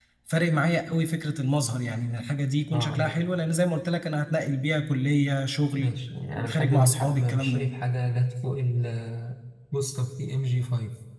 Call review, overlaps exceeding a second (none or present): present